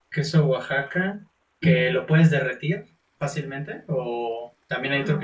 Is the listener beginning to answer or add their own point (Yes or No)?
No